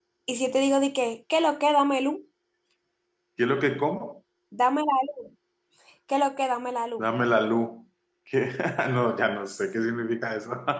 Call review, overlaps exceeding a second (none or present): none